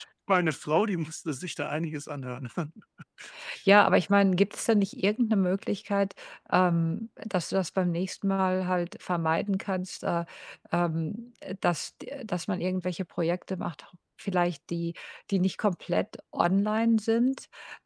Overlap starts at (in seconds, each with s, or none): none